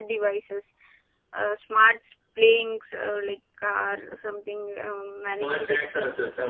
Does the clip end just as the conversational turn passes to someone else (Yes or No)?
Yes